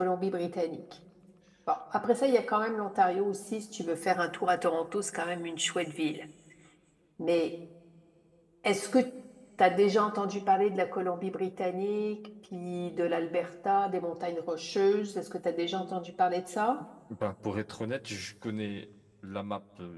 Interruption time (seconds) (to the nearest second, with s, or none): none